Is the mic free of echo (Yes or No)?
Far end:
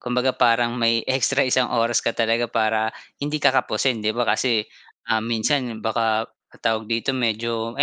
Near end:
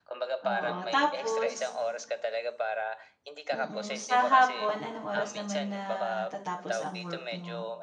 No